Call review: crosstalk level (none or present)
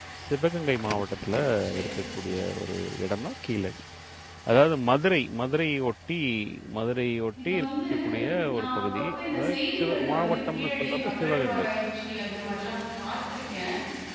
present